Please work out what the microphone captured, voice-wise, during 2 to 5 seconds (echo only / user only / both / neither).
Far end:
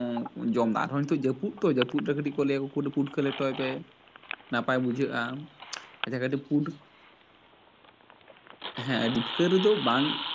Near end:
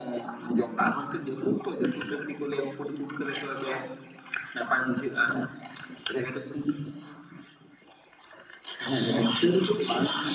echo only